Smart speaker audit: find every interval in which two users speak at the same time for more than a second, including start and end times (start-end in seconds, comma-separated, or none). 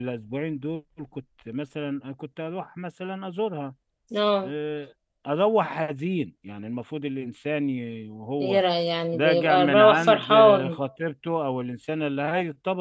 9.1-10.8